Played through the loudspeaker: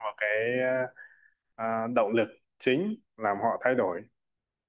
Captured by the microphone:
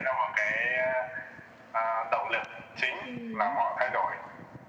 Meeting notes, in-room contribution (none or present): present